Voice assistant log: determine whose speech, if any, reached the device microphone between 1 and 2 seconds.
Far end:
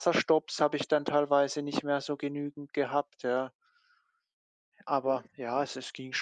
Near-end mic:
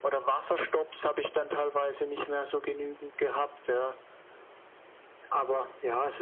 echo only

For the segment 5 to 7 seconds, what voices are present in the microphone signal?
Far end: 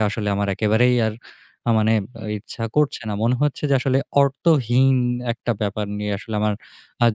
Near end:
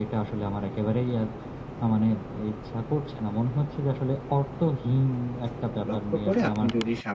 both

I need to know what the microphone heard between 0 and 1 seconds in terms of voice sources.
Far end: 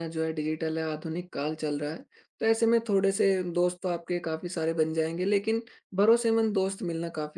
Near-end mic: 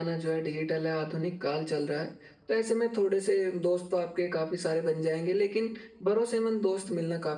echo only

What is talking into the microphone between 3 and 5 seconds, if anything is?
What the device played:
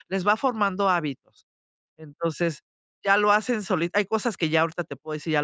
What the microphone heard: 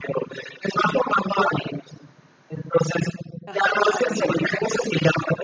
both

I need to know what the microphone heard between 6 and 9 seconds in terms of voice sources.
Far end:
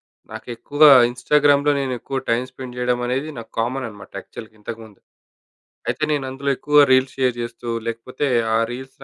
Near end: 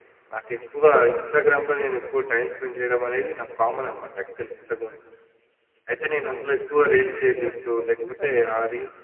both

